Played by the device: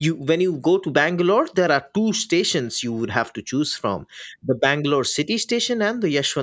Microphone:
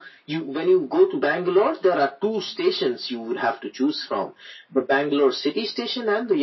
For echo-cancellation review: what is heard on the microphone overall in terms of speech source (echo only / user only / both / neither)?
echo only